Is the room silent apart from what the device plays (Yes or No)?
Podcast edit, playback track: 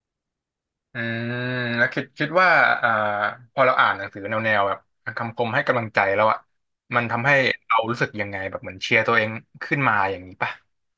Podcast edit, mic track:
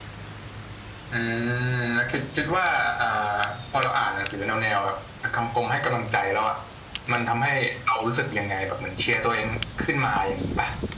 Yes